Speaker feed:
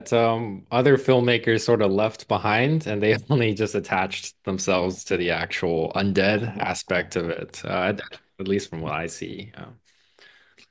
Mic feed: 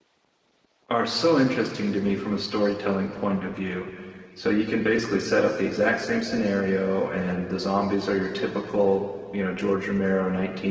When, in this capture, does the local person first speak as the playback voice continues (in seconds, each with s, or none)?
0.9 s